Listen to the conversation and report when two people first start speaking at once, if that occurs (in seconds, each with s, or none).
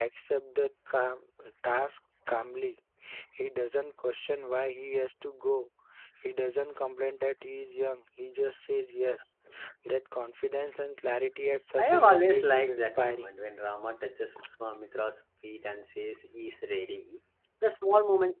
11.8 s